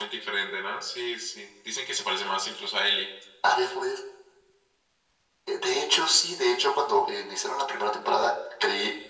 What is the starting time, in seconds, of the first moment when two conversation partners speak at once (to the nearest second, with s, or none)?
none